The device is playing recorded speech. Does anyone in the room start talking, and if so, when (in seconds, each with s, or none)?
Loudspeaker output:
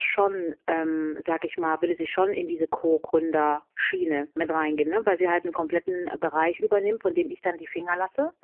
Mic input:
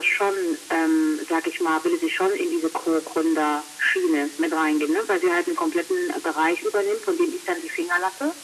none